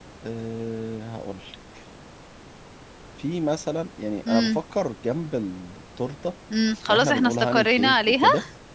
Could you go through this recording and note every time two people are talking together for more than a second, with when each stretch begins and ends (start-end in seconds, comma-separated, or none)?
6.9-8.2